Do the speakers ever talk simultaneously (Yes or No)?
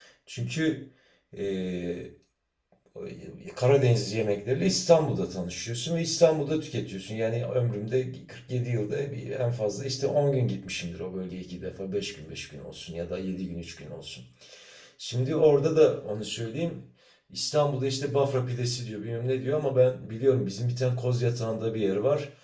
No